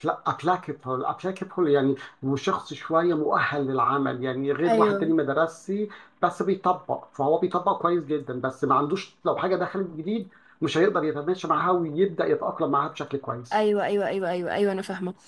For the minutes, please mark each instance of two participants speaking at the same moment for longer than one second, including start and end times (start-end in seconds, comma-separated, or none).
none